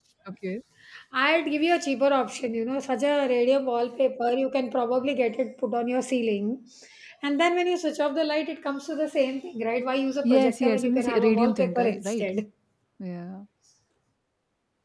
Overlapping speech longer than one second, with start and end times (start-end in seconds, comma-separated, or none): 10.2-12.3